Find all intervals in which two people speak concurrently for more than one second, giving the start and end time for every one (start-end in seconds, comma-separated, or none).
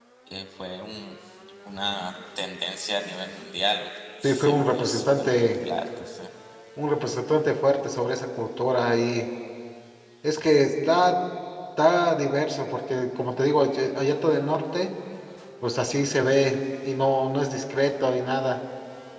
4.2-5.6